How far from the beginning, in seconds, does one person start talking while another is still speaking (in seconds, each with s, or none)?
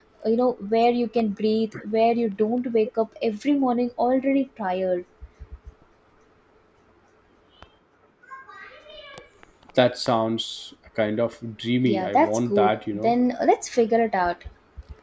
11.8 s